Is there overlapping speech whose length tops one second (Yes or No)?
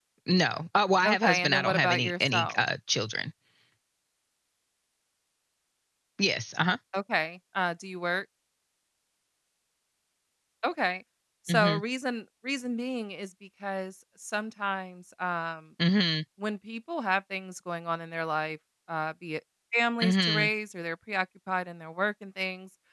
Yes